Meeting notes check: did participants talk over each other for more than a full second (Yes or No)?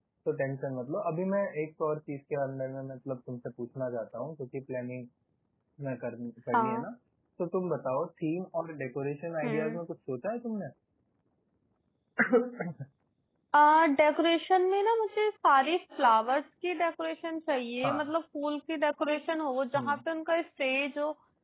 No